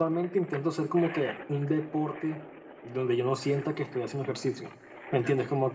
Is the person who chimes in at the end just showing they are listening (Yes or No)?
Yes